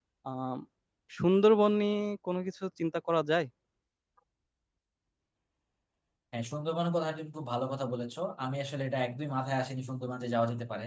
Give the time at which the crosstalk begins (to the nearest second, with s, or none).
none